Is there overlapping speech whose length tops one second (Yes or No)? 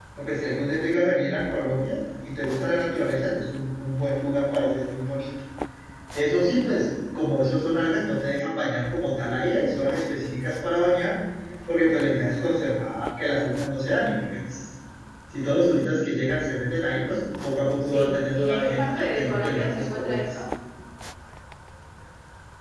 Yes